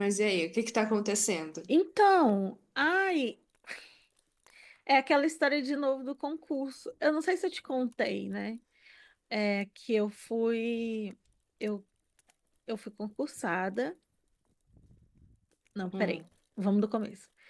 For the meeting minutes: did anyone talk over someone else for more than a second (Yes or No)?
No